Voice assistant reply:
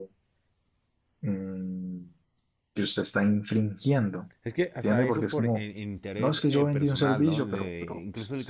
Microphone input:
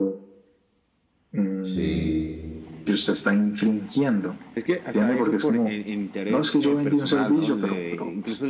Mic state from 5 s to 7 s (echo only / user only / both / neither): echo only